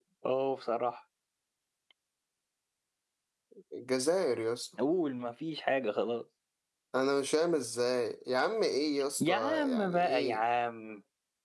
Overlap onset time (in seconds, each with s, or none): 9.2 s